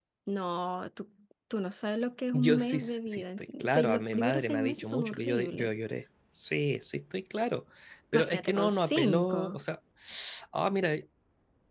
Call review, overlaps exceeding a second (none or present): present